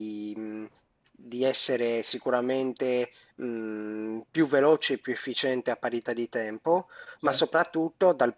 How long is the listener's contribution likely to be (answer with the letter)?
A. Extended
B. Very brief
B